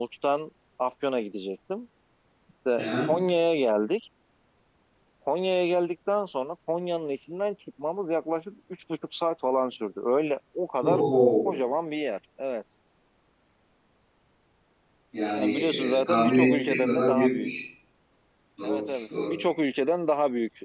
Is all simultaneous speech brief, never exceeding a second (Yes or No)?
No